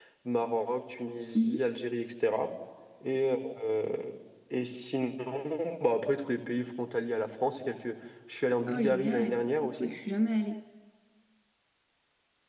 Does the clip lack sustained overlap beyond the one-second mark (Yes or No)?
No